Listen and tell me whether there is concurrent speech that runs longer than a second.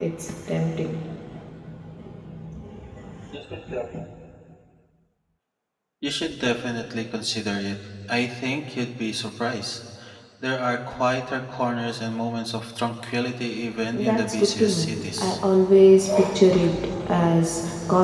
Yes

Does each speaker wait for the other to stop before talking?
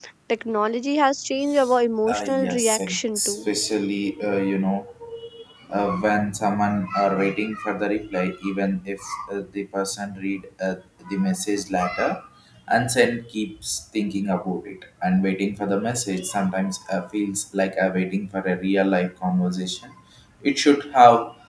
No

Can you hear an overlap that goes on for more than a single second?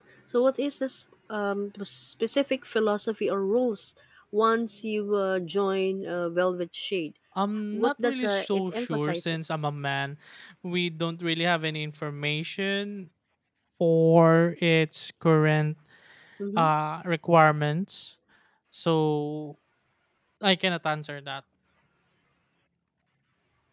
Yes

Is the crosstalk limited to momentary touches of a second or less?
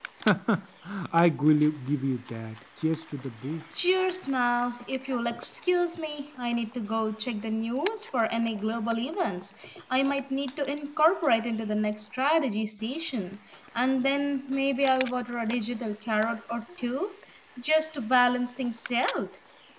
Yes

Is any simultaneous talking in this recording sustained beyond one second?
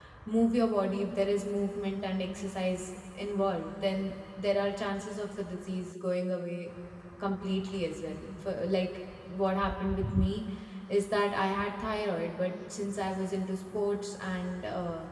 No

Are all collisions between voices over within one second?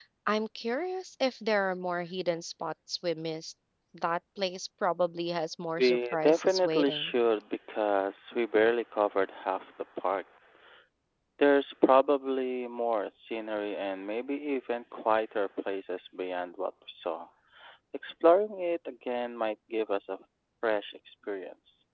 No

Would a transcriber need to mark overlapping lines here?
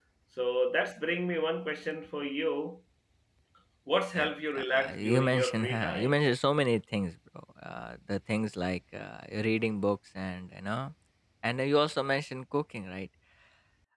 Yes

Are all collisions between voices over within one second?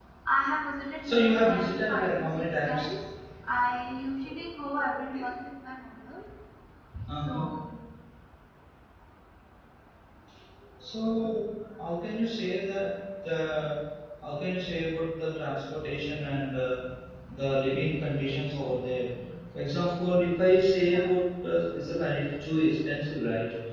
No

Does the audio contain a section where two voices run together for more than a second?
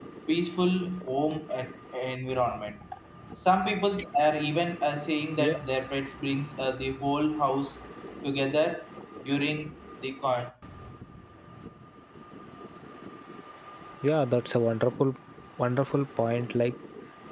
No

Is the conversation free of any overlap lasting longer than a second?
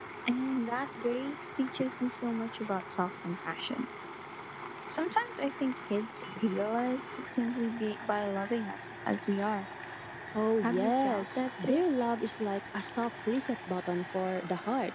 No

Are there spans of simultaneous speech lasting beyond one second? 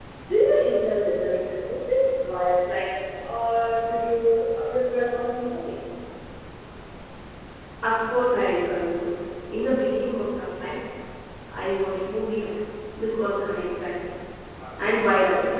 No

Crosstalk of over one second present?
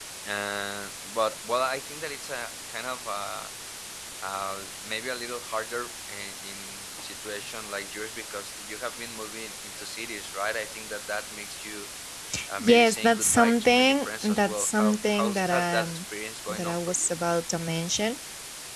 Yes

